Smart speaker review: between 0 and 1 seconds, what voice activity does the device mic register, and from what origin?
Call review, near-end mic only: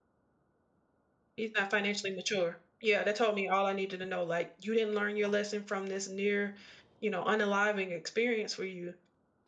neither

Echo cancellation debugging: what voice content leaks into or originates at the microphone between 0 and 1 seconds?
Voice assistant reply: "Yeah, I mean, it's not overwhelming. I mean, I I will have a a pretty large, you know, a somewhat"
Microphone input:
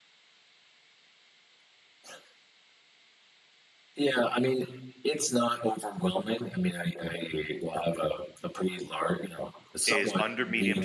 neither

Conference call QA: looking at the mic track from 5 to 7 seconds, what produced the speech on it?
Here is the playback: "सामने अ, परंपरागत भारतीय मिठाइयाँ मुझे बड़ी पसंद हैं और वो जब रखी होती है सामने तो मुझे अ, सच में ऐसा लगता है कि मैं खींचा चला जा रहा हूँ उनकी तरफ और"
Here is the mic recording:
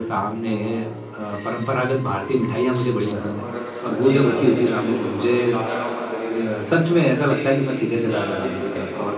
both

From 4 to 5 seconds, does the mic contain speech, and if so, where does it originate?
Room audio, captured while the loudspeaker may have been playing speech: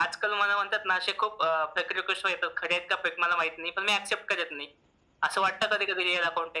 echo only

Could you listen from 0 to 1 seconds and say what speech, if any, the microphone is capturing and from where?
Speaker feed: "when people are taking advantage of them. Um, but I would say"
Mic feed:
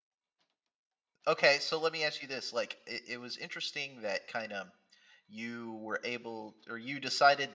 neither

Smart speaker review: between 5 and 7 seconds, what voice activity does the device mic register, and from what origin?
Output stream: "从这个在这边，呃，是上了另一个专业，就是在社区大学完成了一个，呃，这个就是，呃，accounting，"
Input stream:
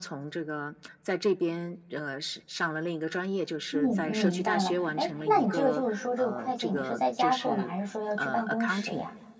both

